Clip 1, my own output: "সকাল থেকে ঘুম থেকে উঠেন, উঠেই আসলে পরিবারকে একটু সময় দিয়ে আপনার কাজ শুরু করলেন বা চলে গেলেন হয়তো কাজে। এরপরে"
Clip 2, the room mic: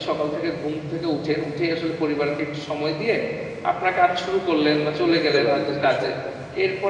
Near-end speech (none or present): present